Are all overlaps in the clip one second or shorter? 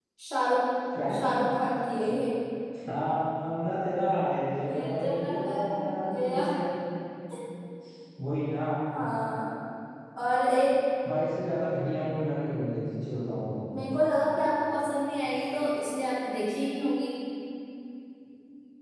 No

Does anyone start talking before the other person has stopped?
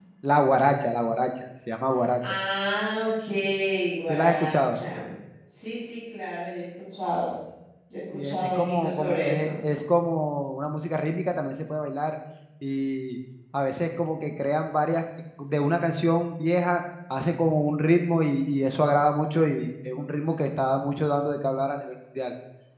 Yes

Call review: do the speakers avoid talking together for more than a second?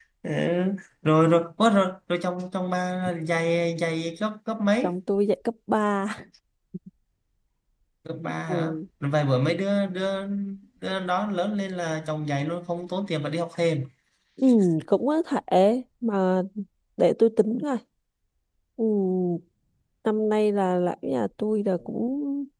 Yes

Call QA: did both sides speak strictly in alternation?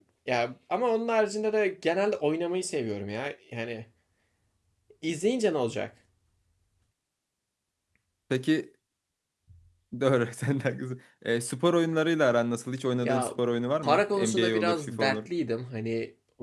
No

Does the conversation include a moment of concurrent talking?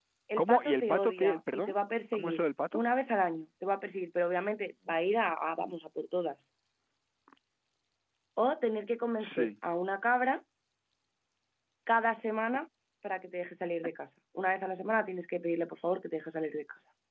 Yes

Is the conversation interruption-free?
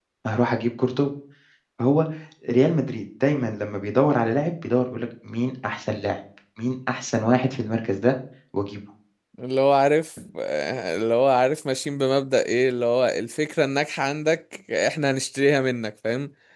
Yes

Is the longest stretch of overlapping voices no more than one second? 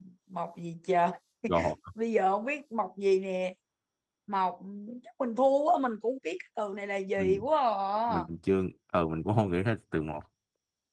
Yes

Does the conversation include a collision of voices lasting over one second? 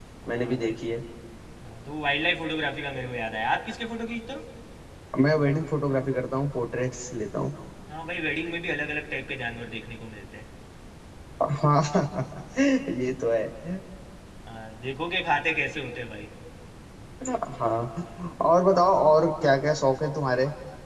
No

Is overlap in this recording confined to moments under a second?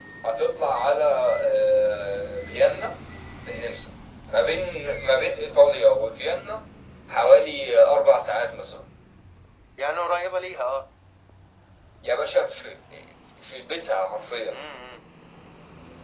Yes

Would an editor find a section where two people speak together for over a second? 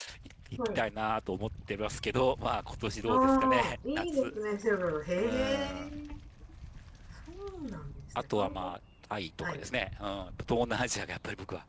Yes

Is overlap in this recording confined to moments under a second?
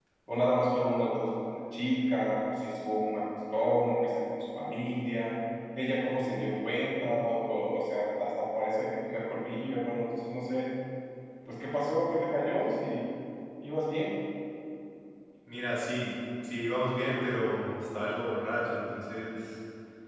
Yes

